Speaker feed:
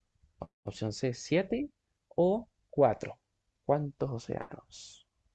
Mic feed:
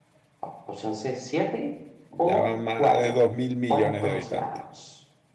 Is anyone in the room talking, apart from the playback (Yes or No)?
Yes